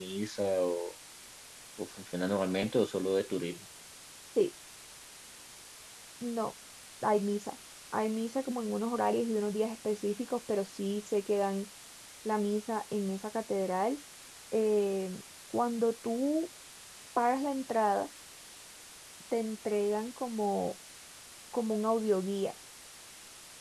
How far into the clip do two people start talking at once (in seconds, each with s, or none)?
none